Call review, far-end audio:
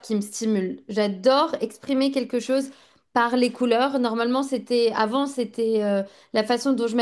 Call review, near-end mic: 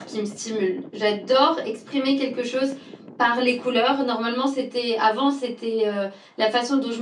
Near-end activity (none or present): none